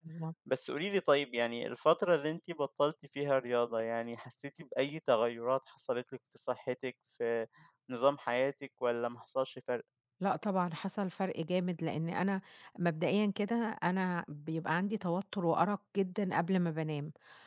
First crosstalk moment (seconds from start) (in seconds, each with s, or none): none